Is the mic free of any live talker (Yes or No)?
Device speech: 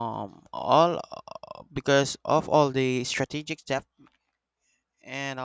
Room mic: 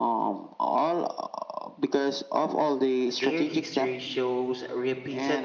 No